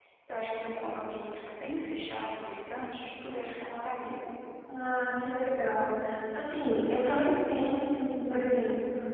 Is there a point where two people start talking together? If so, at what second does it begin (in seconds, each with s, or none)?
none